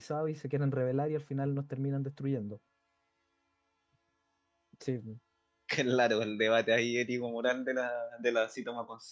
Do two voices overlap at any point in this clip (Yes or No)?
No